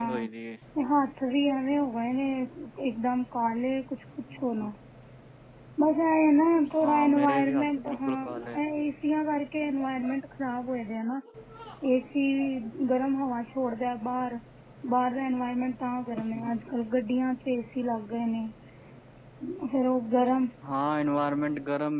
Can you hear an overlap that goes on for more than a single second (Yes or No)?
Yes